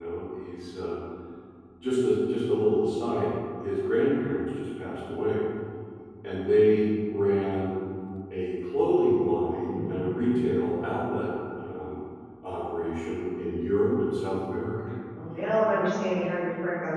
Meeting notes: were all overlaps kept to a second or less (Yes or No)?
Yes